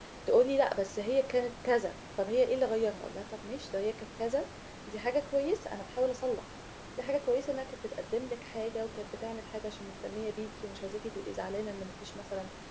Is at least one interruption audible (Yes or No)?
No